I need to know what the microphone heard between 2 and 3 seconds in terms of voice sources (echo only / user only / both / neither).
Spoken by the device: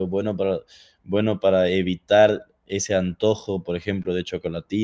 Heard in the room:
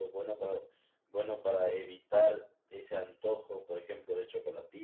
echo only